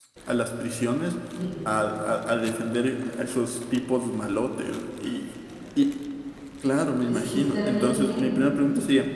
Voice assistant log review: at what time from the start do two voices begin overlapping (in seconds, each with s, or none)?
7.1 s